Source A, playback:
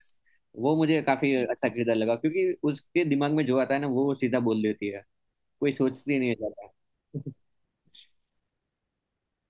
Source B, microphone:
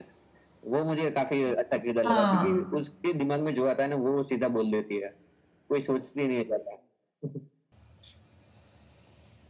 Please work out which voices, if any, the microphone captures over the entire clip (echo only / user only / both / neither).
both